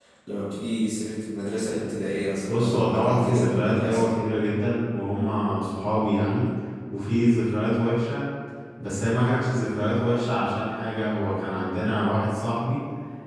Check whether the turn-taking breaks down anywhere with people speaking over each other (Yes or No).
Yes